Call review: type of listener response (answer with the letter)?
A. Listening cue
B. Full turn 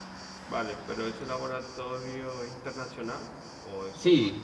B